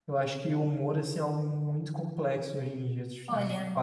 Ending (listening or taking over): taking over